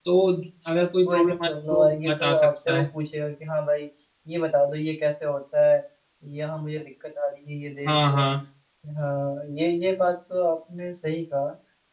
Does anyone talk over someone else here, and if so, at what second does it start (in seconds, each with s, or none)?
1.1 s